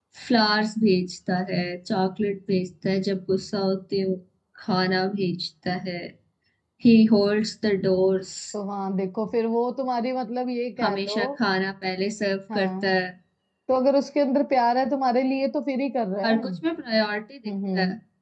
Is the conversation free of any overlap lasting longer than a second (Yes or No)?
Yes